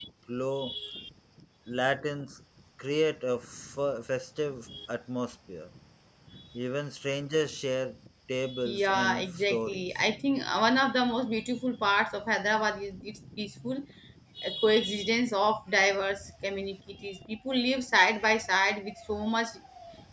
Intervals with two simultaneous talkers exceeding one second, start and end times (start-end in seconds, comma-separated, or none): 8.6-9.9